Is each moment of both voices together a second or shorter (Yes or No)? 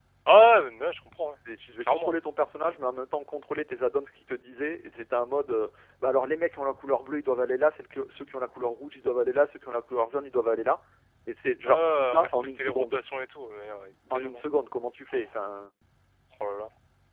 No